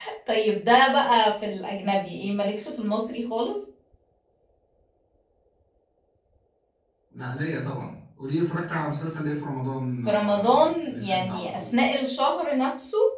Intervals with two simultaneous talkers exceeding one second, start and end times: 10.1-11.8

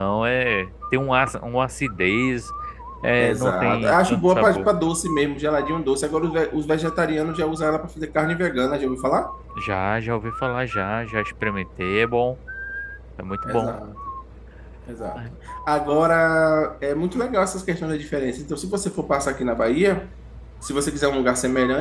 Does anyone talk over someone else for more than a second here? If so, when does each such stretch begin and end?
3.2-4.7

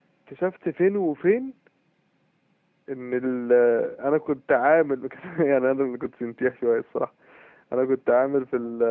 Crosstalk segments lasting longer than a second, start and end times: none

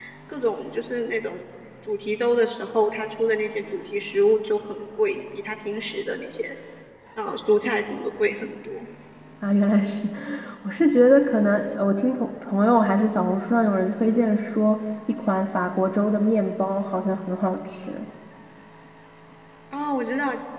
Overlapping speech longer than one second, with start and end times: none

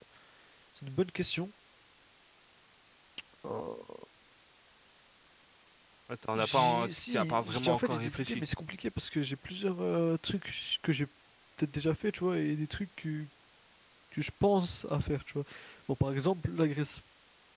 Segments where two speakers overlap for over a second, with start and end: 6.3-8.4

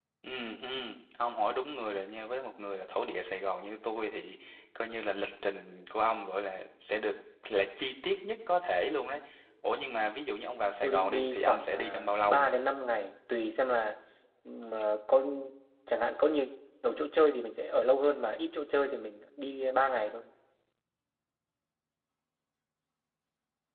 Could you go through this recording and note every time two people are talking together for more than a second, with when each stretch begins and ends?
10.8-12.5

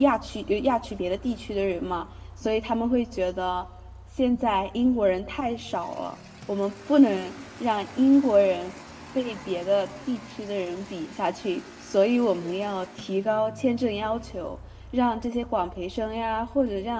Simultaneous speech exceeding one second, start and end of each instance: none

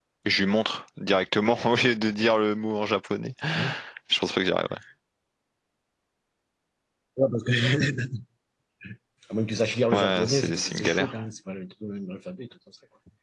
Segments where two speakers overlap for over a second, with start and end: 9.9-11.1

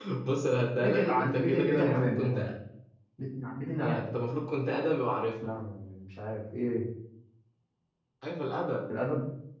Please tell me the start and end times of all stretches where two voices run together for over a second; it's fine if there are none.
0.8-2.5

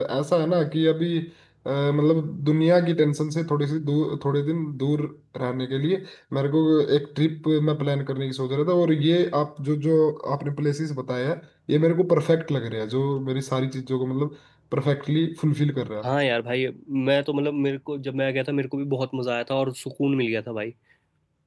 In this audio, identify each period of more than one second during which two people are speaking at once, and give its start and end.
none

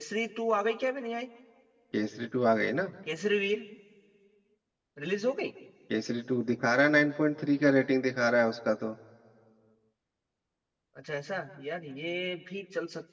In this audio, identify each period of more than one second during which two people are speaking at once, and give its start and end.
none

